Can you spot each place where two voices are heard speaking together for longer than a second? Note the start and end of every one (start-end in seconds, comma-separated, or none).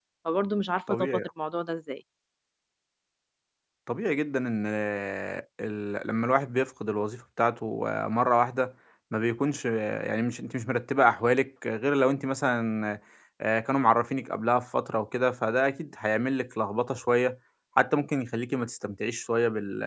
none